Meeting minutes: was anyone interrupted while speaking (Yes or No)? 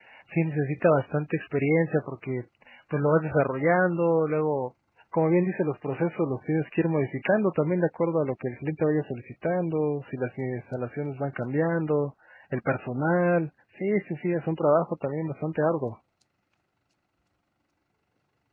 No